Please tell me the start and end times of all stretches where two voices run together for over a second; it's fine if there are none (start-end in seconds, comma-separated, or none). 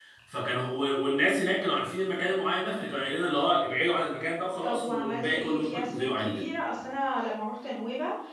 4.6-6.4